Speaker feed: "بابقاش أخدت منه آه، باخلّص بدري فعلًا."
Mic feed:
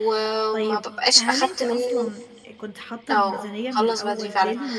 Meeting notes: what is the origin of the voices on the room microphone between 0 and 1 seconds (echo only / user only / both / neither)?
both